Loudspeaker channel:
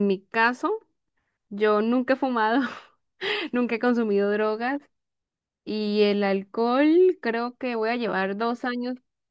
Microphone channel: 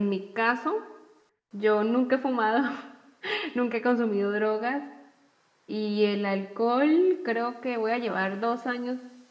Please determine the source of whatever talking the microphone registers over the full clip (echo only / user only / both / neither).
echo only